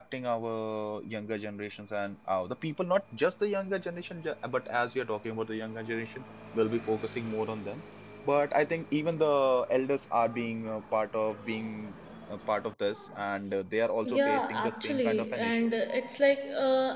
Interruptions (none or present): present